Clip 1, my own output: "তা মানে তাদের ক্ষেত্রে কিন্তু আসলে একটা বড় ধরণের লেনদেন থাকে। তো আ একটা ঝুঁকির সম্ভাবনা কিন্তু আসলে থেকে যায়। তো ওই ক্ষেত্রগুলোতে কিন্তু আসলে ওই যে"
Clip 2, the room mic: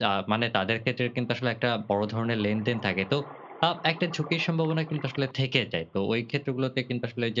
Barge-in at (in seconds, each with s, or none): none